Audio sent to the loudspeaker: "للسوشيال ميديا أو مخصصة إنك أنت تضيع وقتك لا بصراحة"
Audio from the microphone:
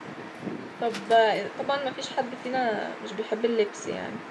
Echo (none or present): none